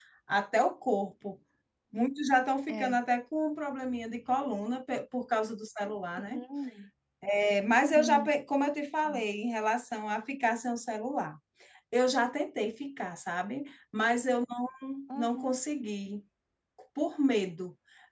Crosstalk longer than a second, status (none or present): none